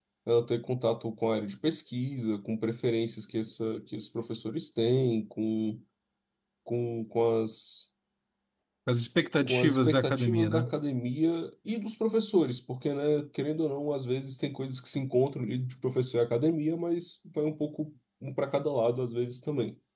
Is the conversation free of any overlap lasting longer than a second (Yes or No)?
No